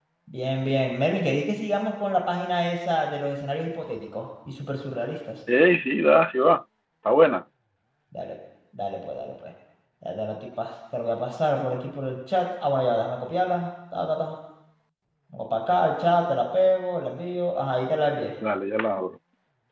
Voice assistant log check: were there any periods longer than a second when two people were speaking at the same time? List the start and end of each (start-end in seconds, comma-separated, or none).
none